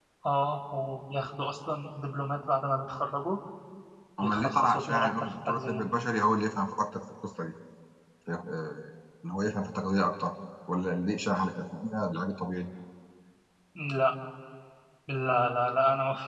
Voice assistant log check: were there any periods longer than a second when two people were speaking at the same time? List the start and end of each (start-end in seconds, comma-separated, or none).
4.2-5.8